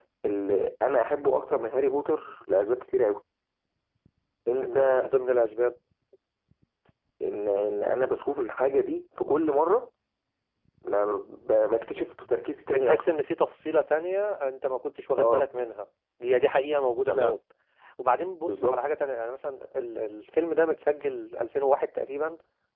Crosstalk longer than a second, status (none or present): none